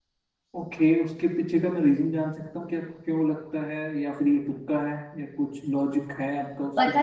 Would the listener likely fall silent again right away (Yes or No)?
No